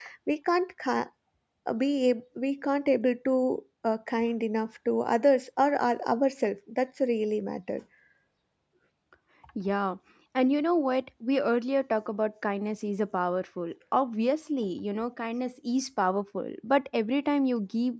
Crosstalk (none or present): none